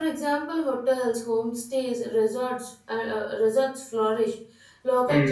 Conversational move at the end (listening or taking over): listening